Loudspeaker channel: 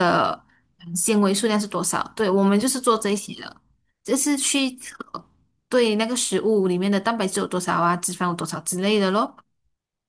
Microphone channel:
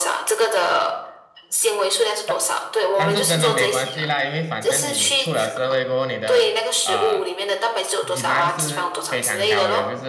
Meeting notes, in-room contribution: present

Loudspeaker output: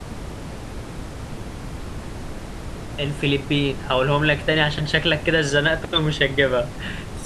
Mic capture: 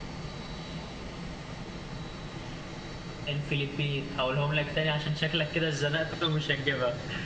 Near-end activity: none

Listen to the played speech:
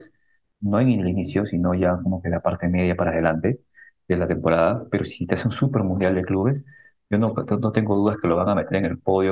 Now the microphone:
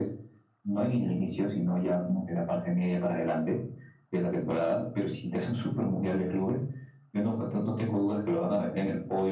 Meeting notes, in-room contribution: none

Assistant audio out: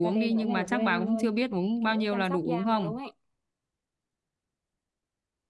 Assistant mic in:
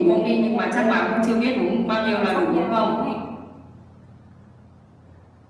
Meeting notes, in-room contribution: none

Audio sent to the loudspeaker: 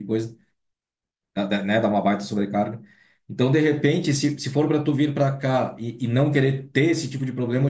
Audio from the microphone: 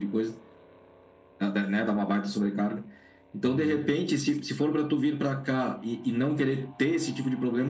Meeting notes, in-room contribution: present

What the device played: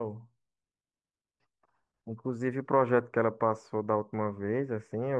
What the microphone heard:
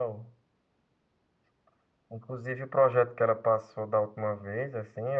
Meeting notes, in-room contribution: none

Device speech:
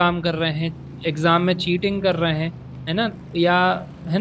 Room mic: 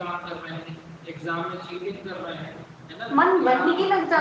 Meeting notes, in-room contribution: present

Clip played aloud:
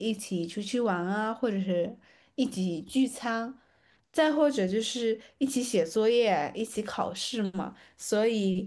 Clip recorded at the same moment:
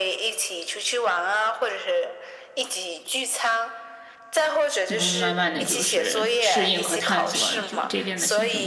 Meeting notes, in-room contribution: present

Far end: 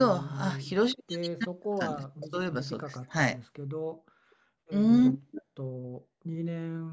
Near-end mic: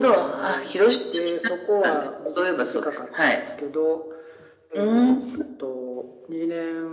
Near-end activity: none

